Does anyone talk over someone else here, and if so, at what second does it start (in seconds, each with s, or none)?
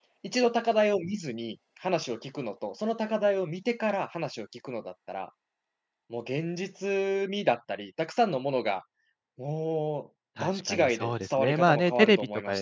10.4 s